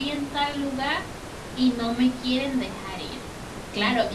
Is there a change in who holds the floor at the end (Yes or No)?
No